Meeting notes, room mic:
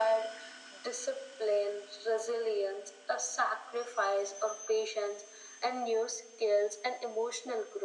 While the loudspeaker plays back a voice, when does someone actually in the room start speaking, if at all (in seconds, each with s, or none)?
none